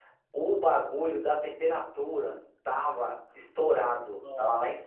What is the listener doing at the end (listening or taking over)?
listening